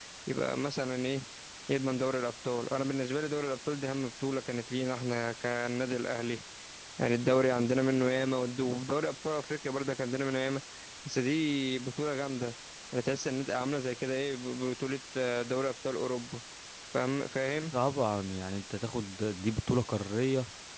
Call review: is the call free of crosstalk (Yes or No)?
Yes